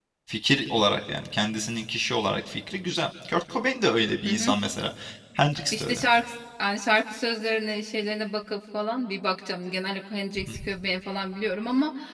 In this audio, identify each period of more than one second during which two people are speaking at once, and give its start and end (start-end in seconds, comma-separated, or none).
none